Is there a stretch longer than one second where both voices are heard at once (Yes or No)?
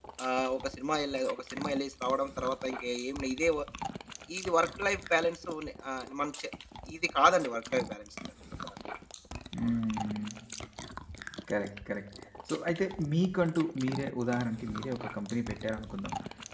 No